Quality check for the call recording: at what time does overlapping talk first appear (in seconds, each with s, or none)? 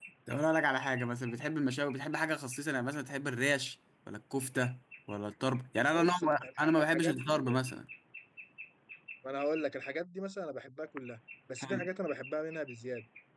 5.9 s